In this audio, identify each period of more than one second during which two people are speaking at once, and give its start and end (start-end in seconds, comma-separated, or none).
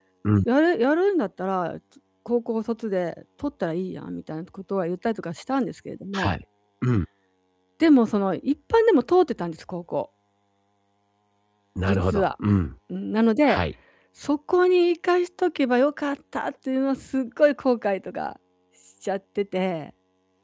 none